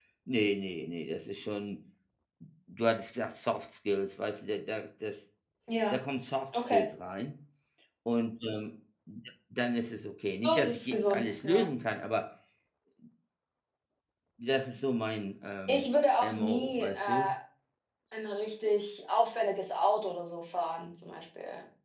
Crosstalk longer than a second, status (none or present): present